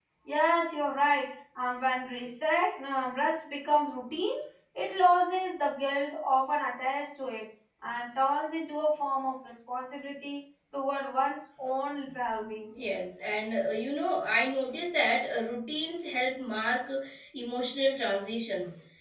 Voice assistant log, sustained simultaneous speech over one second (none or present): none